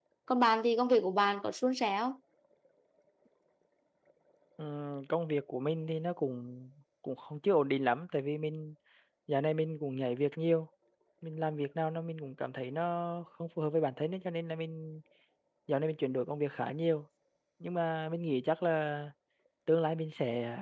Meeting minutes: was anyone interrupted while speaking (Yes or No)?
No